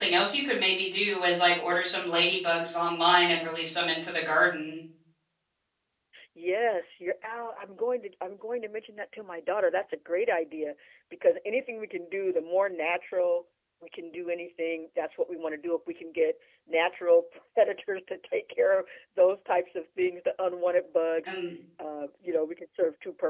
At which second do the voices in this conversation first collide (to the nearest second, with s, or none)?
none